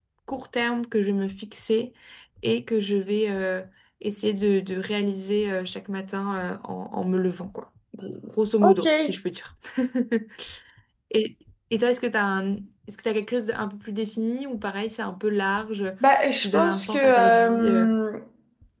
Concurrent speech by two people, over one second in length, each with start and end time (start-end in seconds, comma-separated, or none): 16.4-17.9